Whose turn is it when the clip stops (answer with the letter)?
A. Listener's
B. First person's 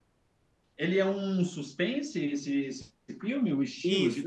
A